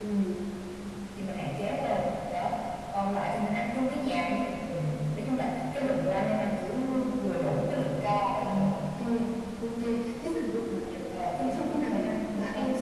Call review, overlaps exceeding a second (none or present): present